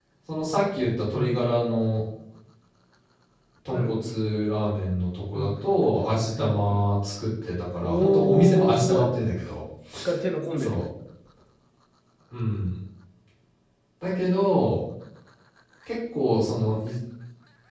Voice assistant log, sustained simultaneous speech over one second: present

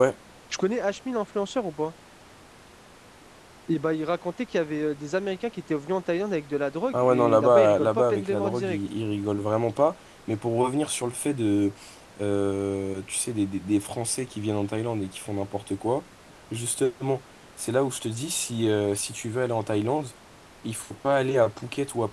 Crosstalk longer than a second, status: present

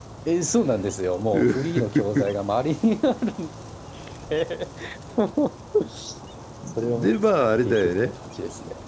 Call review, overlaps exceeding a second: present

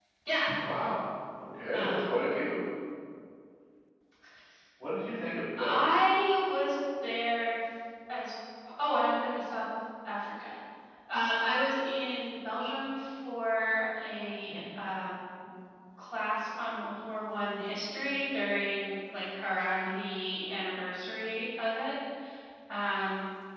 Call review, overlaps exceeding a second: none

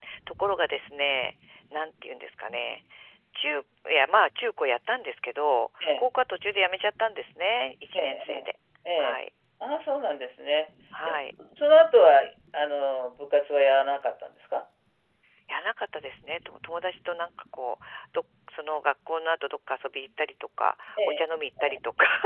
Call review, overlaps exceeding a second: none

